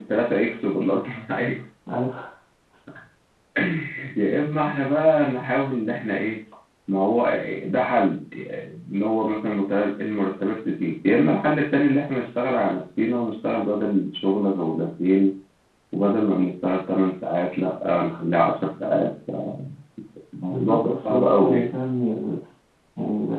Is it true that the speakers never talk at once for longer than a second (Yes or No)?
No